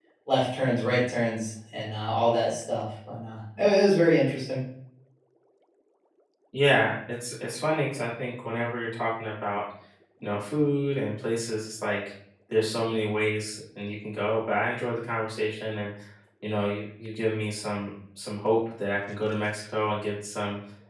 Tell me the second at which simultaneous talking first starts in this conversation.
none

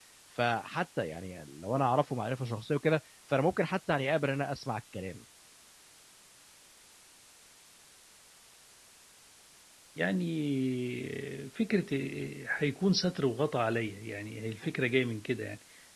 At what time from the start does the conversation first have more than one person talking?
none

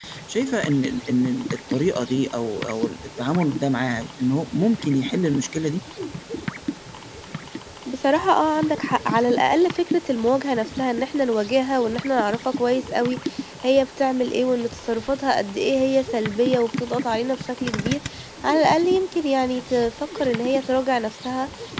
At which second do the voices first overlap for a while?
none

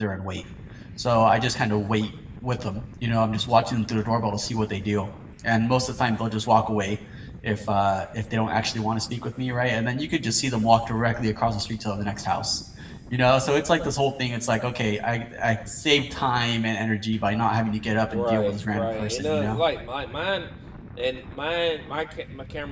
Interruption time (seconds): 18.1 s

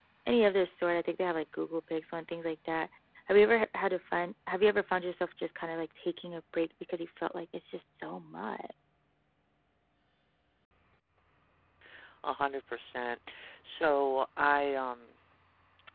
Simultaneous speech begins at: none

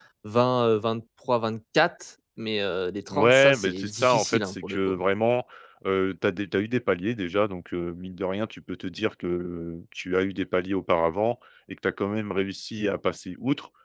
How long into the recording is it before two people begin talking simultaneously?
3.1 s

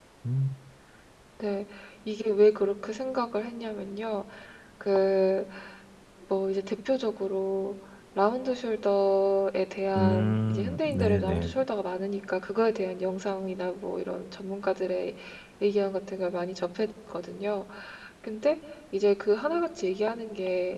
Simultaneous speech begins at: 9.9 s

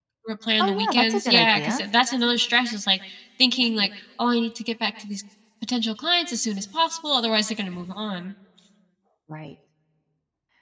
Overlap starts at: 0.6 s

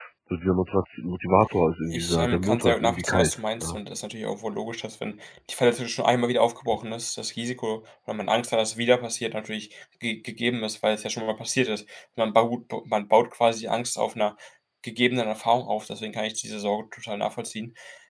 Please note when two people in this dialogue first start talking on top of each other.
1.9 s

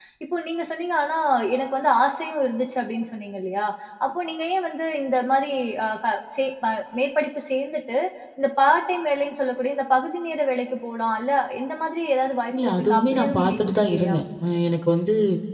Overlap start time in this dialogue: 12.5 s

